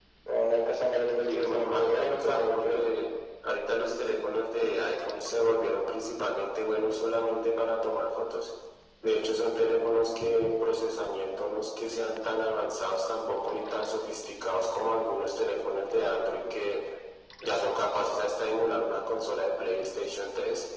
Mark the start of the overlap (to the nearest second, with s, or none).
1 s